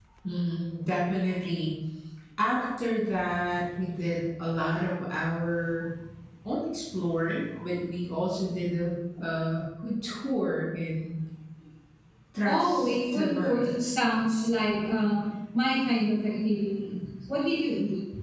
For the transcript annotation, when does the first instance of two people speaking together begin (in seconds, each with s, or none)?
12.4 s